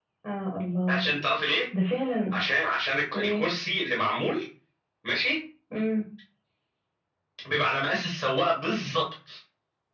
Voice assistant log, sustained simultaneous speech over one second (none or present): none